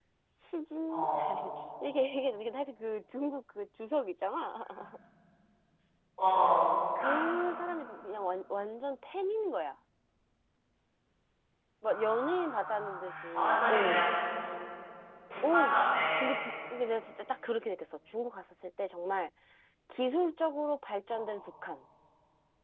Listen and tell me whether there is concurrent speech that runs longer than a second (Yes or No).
Yes